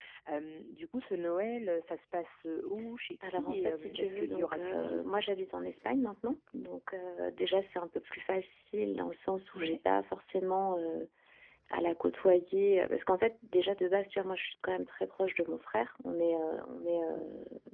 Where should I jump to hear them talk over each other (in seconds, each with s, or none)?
3.2 s